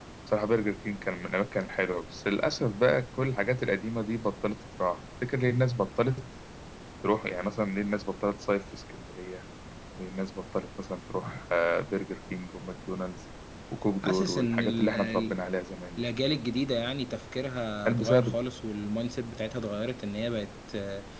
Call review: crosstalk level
present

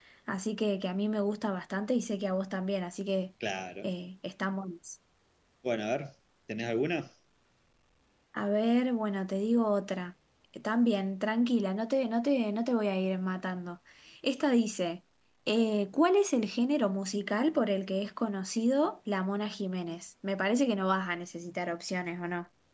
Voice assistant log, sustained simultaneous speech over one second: none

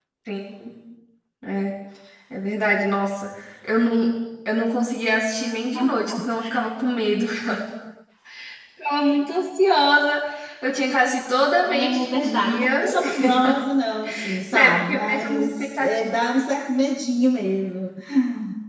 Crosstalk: present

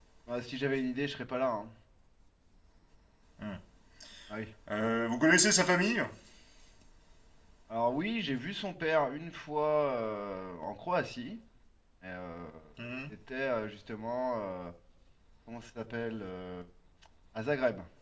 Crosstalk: none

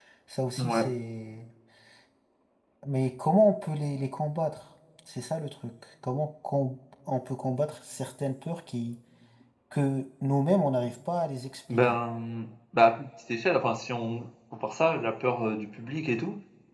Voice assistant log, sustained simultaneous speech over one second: none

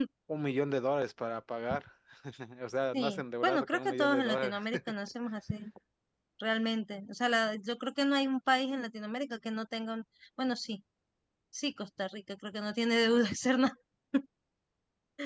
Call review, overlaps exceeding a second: present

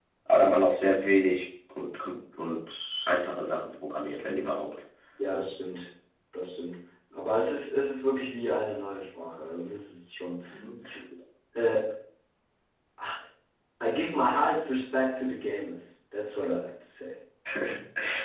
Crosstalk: none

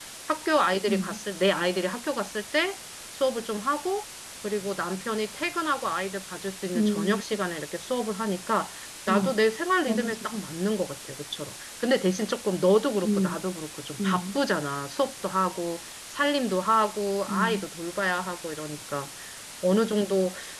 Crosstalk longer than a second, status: none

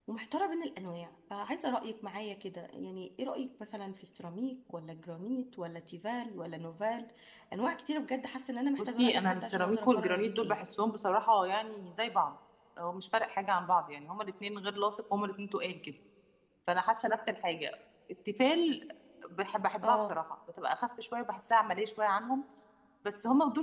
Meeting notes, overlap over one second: present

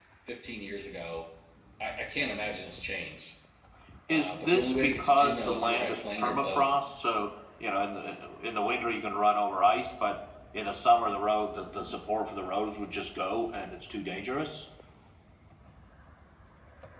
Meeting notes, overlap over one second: present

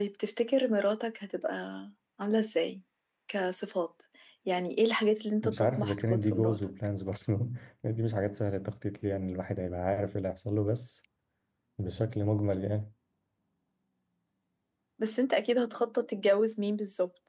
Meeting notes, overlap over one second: present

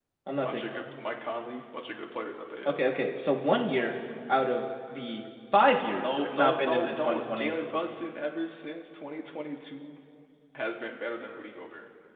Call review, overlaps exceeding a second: present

